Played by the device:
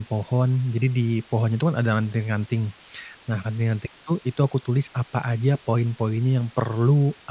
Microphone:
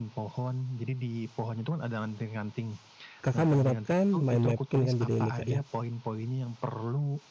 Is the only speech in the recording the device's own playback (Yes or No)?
No